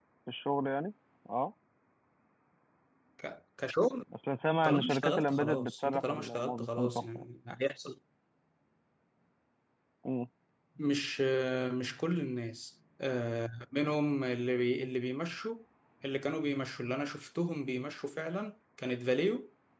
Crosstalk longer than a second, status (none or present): present